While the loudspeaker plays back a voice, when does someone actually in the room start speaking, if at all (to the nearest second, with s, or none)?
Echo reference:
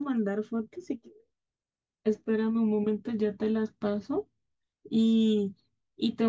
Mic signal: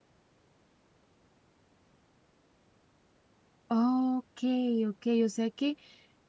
4 s